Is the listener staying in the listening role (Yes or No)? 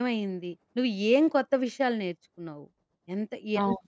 Yes